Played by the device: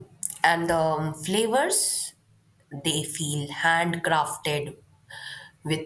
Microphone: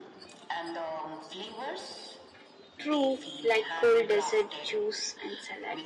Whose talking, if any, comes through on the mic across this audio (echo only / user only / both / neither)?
both